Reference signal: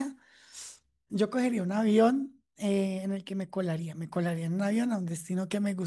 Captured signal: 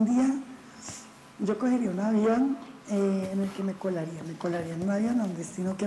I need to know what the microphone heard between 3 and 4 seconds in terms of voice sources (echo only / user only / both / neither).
echo only